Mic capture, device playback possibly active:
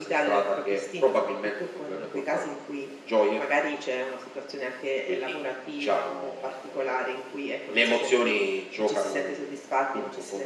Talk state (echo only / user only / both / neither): echo only